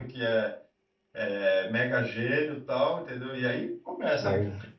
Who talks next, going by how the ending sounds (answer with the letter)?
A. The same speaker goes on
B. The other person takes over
A